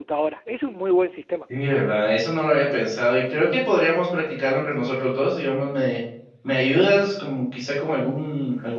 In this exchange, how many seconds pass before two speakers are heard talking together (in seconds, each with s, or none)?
none